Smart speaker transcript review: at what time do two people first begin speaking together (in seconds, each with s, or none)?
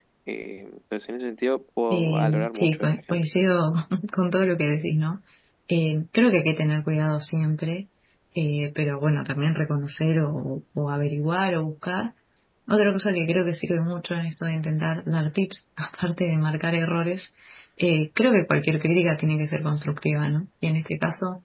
1.9 s